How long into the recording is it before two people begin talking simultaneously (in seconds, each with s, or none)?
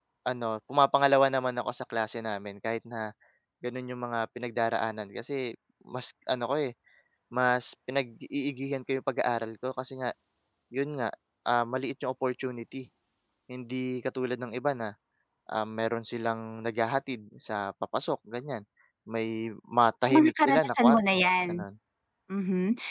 20.1 s